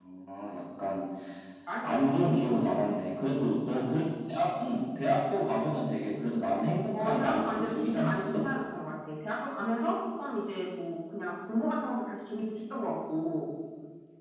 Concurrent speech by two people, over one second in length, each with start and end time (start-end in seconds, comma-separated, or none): 7.0-8.4